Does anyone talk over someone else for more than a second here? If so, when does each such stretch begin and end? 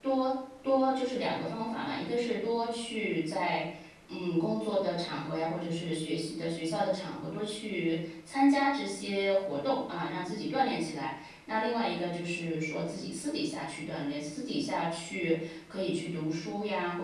none

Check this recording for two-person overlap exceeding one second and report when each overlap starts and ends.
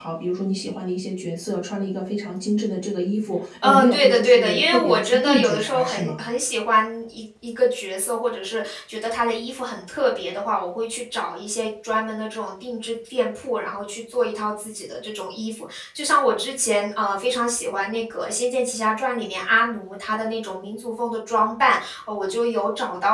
3.6-6.1

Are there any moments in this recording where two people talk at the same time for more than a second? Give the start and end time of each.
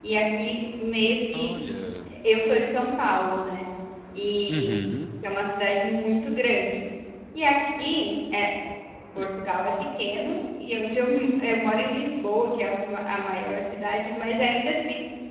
none

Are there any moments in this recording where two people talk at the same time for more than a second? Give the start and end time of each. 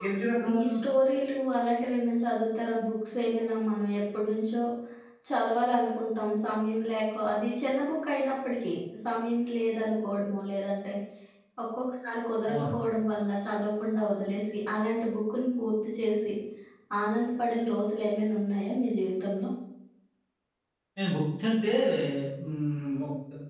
none

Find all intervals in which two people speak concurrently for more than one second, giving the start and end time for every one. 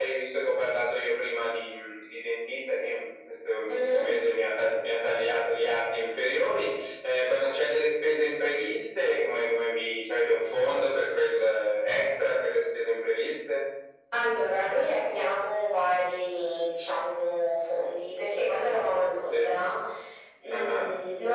none

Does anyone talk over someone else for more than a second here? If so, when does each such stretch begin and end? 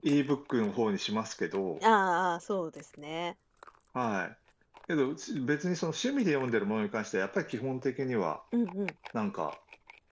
none

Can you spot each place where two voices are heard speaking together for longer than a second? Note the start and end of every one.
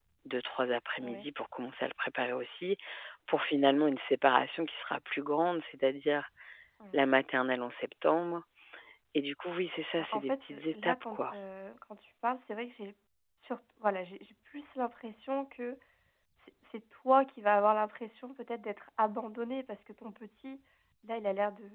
10.0-11.3

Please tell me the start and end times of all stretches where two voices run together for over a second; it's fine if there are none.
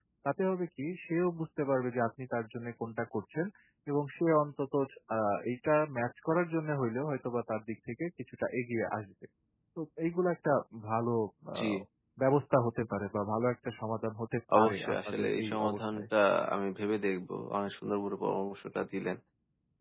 14.6-16.0

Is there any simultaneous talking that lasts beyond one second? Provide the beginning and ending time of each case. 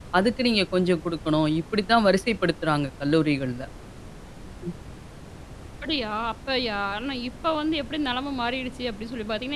none

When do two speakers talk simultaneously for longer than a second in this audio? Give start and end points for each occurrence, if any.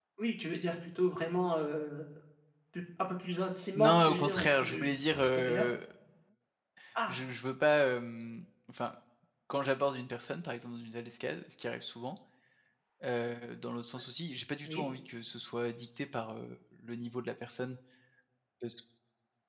3.7-5.7

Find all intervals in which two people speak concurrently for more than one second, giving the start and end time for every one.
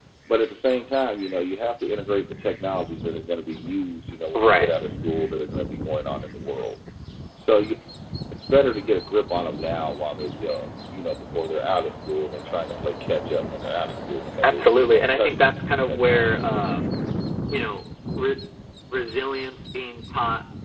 14.4-16.6

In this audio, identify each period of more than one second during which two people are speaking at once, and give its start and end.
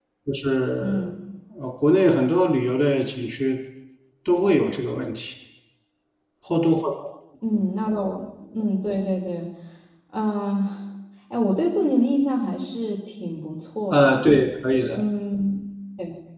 none

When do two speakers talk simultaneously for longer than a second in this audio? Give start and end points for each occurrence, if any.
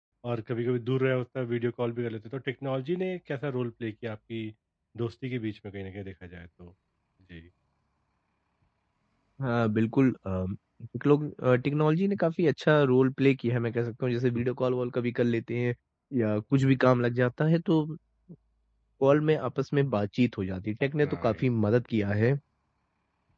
none

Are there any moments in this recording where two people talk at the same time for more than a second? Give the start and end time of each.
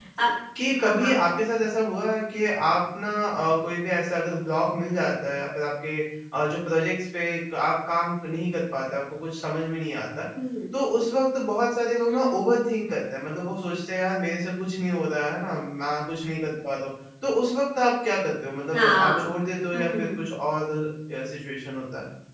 none

